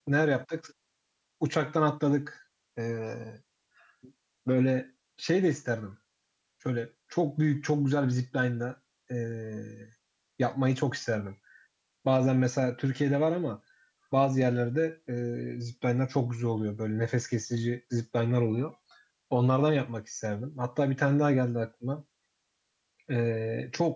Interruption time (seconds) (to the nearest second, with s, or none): none